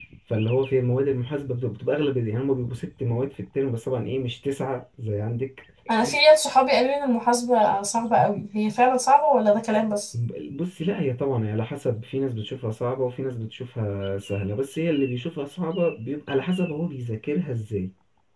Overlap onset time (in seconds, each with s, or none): none